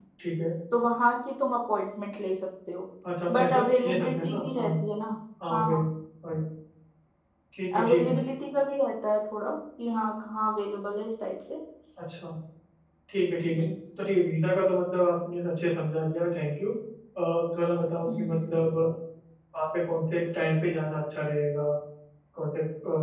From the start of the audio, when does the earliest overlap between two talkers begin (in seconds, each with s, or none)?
3.3 s